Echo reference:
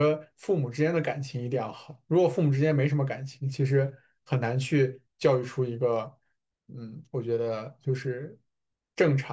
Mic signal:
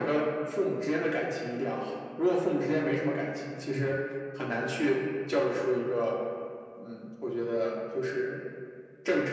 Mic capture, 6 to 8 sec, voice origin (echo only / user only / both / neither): echo only